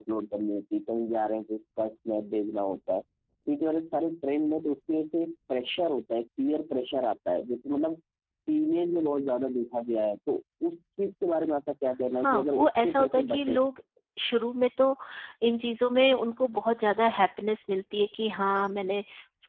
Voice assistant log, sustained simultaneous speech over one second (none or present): present